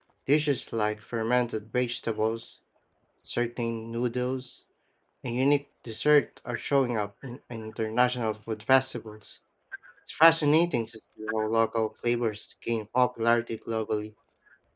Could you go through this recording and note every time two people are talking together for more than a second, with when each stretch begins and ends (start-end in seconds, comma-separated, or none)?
none